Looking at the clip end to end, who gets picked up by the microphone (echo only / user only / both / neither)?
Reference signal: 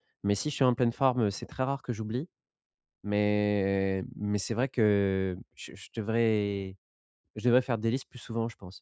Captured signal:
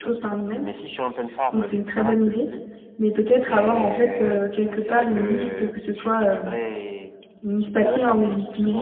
both